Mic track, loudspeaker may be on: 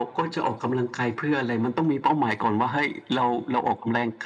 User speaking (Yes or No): No